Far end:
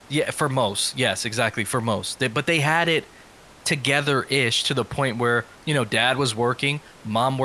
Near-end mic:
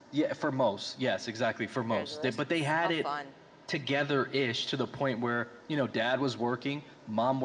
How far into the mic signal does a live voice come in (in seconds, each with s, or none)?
1.7 s